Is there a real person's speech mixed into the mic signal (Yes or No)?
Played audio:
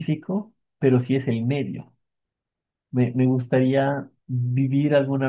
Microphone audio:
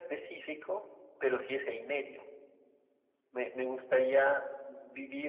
No